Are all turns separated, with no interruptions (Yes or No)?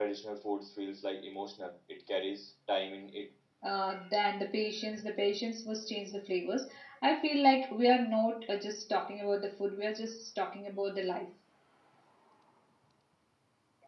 Yes